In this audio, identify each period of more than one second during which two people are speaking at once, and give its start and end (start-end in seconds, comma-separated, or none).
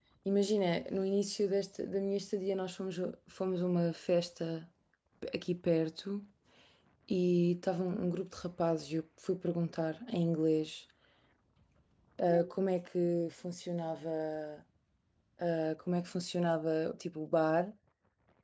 none